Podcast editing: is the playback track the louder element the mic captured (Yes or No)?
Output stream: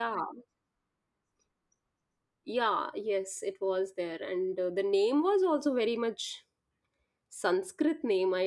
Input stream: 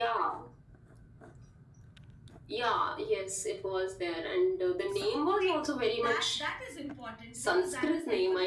Yes